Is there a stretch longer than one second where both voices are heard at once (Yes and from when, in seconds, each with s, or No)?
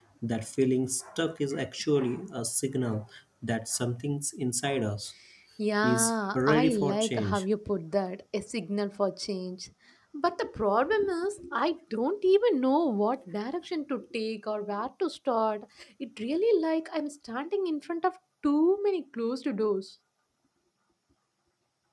Yes, from 5.8 s